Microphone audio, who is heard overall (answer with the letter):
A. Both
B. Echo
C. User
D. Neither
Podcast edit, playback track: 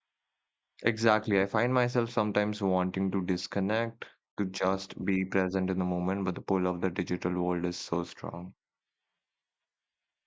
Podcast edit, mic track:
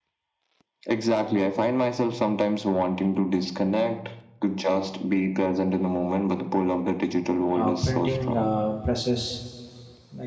A